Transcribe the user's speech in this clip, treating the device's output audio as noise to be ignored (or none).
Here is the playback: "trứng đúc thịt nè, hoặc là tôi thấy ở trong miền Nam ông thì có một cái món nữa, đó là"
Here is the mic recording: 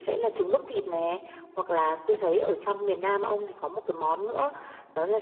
none